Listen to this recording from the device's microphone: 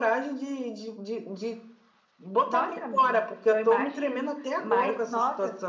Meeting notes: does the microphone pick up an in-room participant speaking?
No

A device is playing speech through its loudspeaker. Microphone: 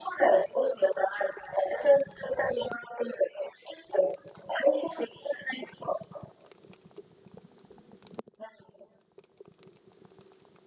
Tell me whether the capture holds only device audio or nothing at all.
Yes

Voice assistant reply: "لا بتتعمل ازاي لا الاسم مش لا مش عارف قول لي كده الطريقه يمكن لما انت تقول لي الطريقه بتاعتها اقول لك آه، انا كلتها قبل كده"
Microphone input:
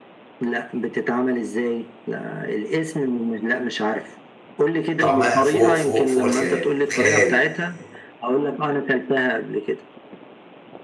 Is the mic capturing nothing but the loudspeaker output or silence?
No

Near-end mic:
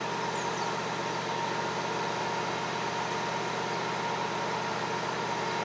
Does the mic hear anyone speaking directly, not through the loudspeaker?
No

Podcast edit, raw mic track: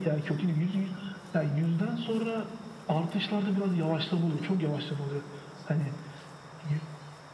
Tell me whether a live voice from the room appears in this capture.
No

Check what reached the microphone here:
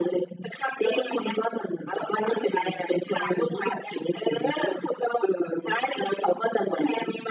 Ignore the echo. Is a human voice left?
No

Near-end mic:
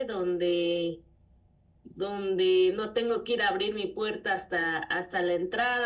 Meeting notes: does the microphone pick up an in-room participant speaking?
No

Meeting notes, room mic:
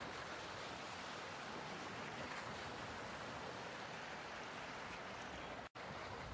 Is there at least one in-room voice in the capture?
No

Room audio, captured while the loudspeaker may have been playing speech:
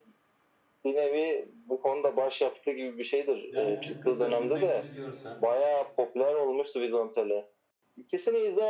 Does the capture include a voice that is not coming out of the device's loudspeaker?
Yes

